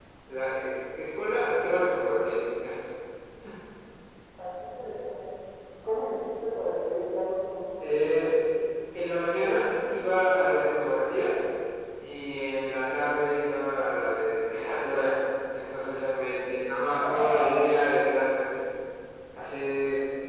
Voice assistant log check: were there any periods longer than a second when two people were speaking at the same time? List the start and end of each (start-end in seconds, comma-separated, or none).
none